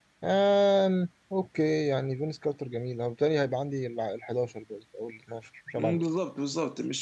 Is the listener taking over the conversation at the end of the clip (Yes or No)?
Yes